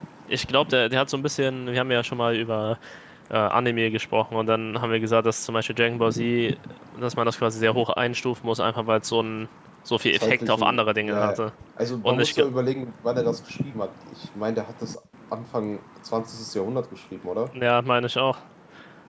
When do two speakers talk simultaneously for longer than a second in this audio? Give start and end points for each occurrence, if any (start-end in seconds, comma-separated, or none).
10.1-11.4